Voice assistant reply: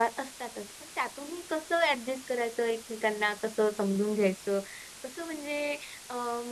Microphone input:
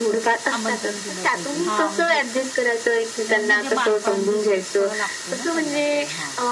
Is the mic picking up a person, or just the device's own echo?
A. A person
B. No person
A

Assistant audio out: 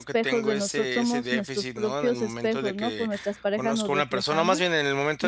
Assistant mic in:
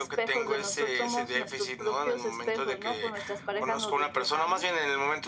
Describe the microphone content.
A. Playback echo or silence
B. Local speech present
A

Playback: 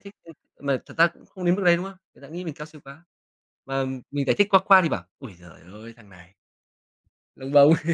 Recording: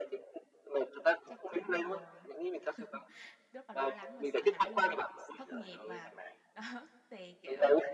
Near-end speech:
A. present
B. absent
A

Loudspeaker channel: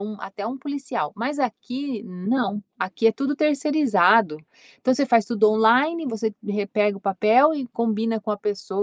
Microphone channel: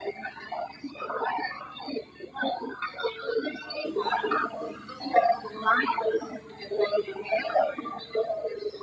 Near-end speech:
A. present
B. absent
B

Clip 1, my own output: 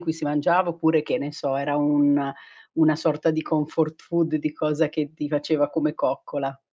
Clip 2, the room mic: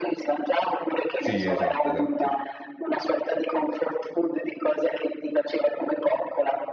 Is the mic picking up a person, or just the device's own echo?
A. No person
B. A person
B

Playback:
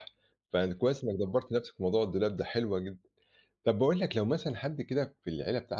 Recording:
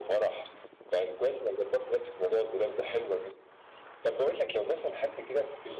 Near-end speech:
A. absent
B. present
A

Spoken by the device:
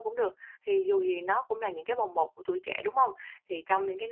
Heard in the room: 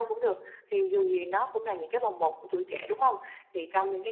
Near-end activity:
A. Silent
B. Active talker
A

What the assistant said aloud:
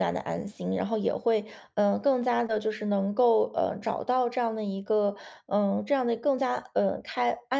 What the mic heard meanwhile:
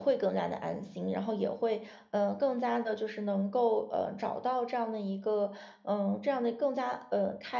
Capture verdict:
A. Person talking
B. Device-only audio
B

